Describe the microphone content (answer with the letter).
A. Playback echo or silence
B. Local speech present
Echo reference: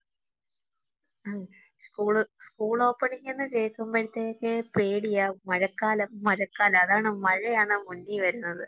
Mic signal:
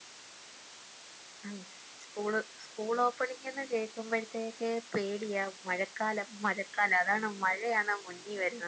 A